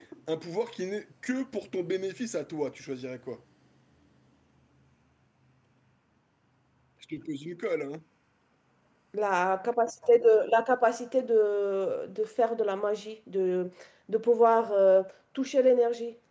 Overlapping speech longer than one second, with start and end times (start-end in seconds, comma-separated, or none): none